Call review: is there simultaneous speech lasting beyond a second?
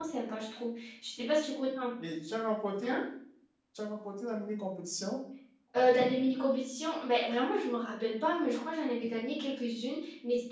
No

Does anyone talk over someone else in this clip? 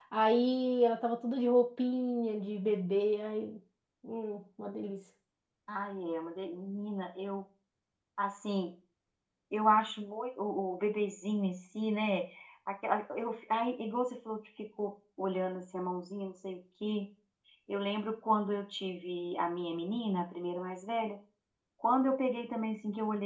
No

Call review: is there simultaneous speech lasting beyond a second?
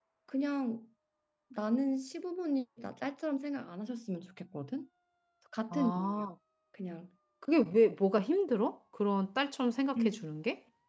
No

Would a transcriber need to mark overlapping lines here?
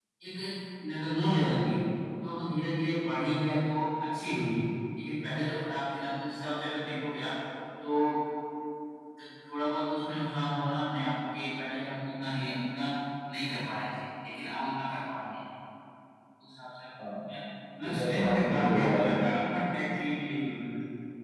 Yes, from 17.9 s

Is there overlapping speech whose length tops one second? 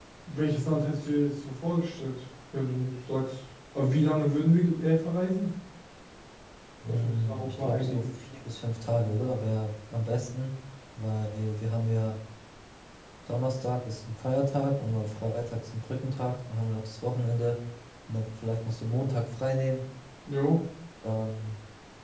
Yes, from 6.8 s

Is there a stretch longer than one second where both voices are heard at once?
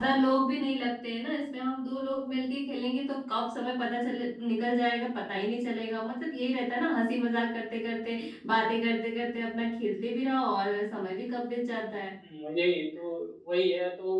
No

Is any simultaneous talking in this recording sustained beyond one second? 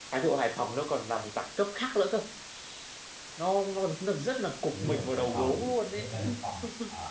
Yes, from 4.7 s

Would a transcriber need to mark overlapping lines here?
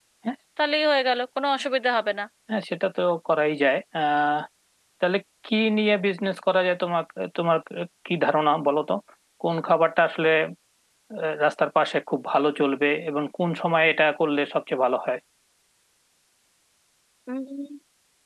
No

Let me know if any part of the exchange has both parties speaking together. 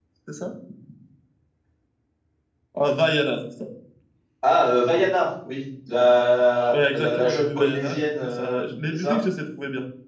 Yes, from 6.7 s

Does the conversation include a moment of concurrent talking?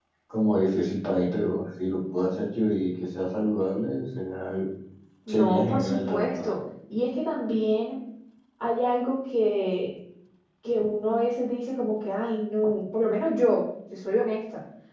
Yes, from 5.3 s

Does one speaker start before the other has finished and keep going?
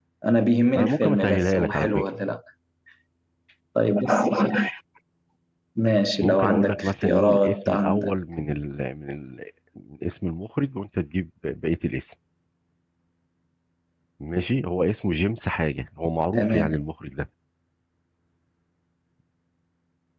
Yes, from 0.8 s

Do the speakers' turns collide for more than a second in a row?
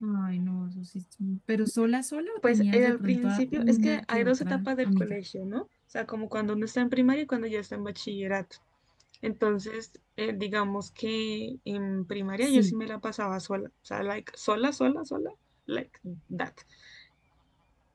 Yes, from 2.5 s

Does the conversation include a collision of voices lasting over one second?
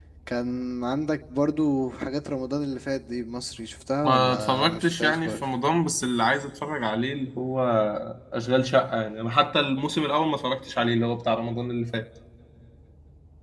Yes, from 4.0 s

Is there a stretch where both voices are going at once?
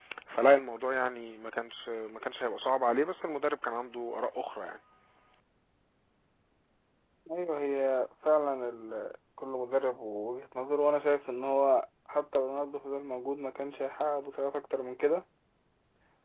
No

